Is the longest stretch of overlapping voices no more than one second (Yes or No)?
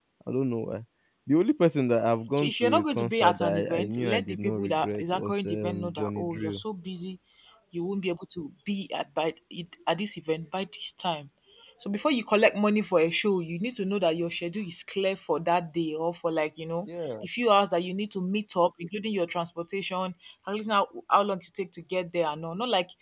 No